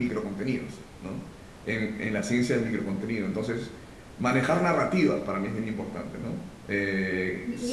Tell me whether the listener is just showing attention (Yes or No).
No